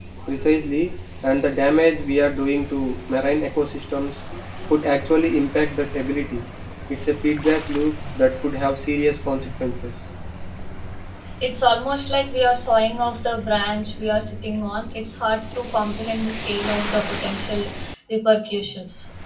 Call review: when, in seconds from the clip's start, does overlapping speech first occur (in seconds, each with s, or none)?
none